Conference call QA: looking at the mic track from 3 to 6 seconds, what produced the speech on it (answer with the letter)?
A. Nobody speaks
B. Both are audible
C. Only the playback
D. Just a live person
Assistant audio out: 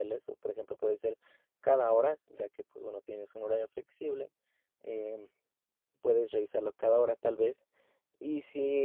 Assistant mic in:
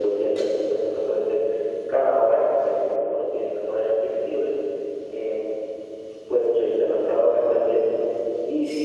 C